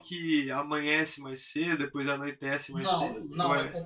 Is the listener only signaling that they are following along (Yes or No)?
No